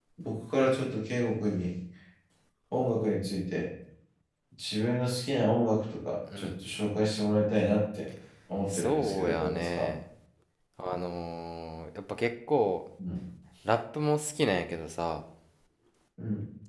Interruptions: present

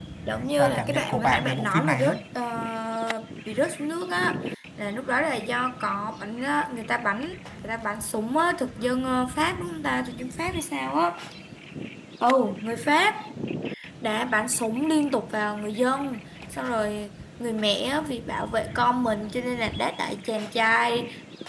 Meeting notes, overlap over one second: present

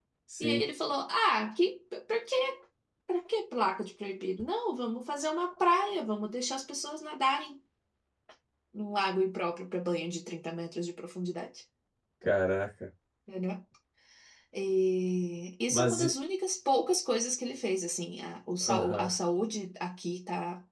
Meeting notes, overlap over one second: none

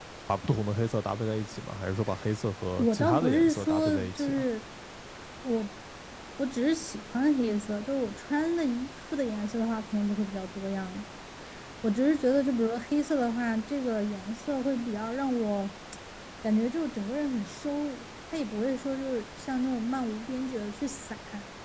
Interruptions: present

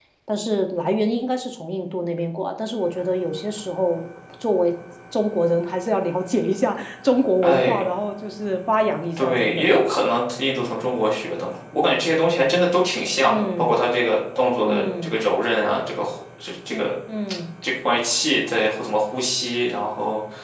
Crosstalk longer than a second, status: none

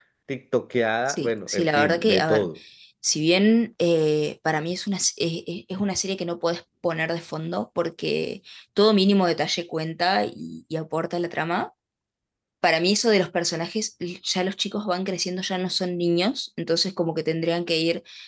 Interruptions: present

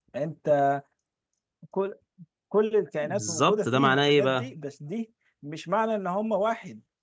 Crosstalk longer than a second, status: present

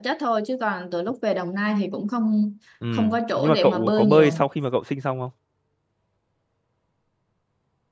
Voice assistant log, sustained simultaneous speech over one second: present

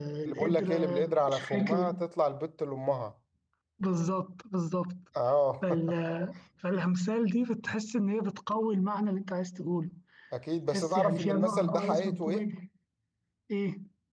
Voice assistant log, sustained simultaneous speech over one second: present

